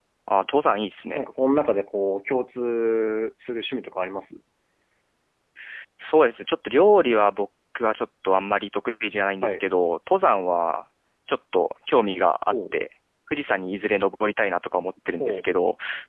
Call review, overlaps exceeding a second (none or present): none